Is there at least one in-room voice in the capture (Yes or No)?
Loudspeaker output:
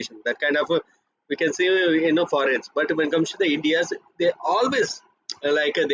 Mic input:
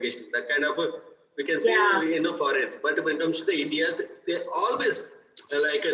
Yes